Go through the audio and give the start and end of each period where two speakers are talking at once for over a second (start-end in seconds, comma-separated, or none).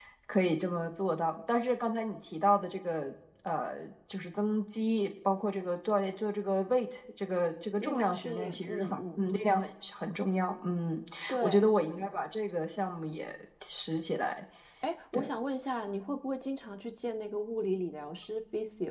7.8-9.2